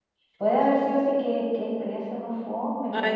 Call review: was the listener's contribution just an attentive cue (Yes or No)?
No